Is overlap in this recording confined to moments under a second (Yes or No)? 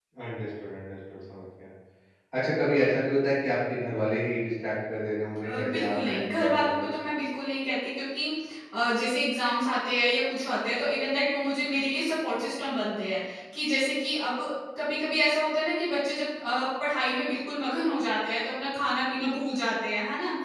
No